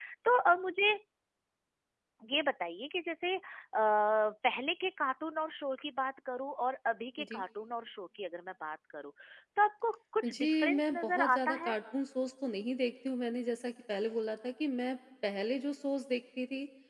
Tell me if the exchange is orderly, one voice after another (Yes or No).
No